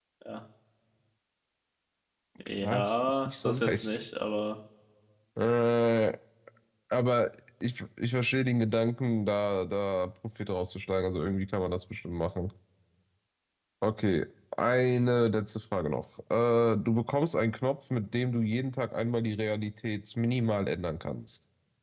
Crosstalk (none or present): present